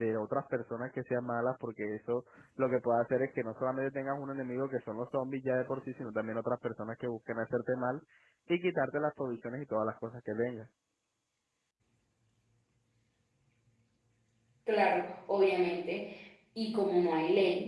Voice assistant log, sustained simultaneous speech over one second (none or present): none